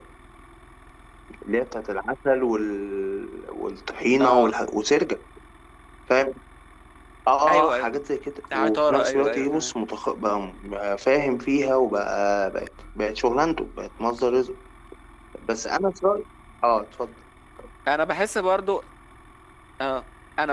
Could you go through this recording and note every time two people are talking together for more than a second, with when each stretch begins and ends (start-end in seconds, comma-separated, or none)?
8.5-9.7